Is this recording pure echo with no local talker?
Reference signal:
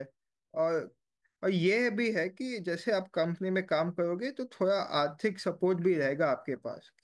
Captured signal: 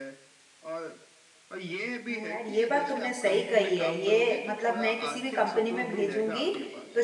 No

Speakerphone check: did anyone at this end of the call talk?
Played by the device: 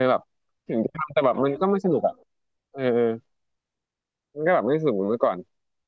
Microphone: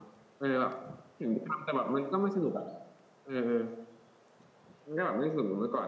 No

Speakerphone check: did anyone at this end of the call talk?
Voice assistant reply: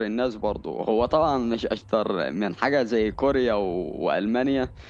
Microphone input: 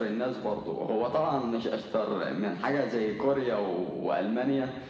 No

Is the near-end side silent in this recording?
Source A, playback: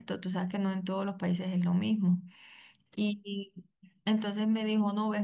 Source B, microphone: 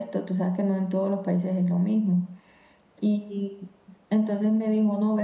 Yes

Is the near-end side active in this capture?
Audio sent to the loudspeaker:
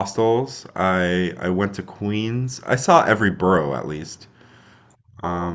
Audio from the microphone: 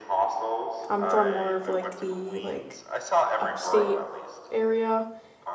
Yes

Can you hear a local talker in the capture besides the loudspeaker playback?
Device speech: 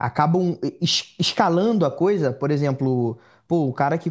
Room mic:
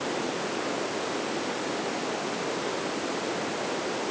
No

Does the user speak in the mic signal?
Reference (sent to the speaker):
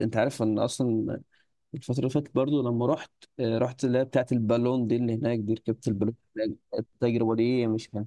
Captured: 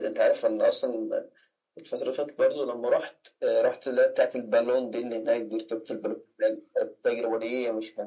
No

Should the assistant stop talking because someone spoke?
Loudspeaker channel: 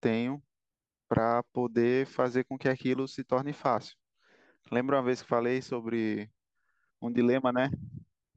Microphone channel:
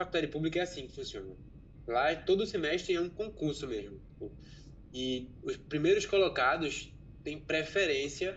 Yes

